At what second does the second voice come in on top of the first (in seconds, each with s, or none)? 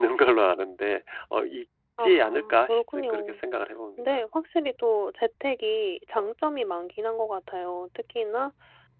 2.0 s